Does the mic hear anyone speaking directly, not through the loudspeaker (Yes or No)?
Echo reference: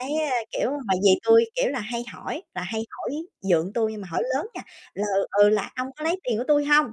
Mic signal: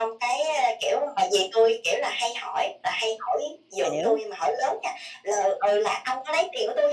Yes